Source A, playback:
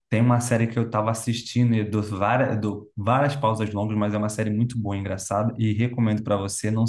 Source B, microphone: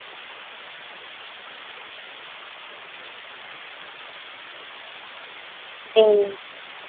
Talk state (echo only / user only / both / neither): user only